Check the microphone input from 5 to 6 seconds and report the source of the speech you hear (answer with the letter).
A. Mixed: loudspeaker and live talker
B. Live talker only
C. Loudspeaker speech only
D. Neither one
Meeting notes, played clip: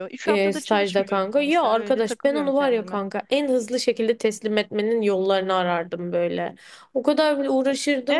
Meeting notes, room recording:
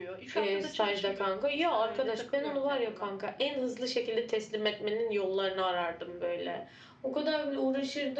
C